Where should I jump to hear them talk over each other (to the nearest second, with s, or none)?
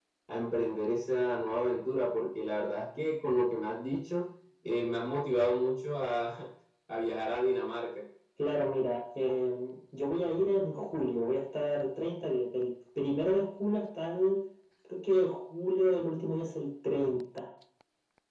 none